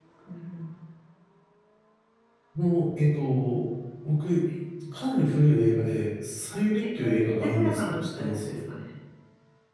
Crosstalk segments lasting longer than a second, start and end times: 6.8-8.5

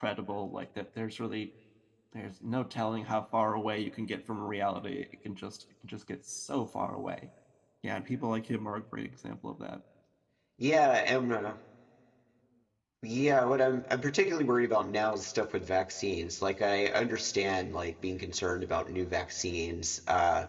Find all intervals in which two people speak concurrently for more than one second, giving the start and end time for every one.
none

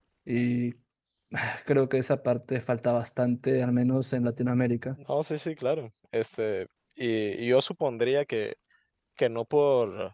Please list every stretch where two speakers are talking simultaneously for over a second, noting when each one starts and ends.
none

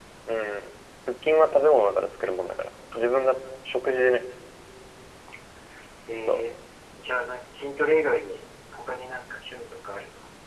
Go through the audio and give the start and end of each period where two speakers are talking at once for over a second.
none

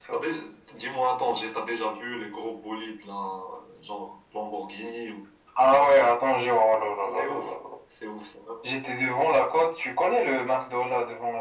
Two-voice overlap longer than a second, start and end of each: none

